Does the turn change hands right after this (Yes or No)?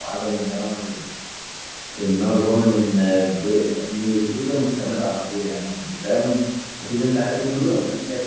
No